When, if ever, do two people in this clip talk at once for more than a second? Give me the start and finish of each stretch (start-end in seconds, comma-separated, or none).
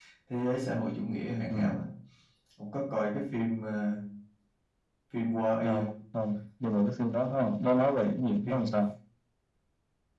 none